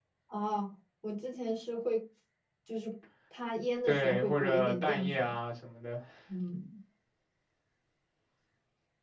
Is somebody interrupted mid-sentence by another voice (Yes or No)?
Yes